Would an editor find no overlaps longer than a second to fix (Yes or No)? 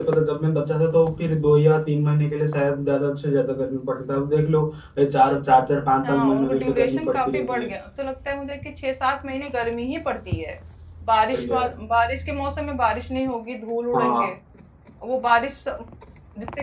No